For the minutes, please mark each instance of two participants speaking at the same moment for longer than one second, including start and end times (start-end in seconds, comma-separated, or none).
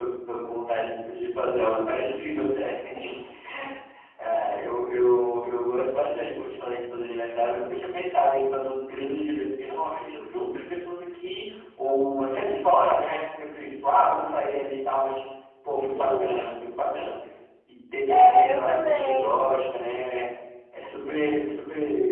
18.1-19.3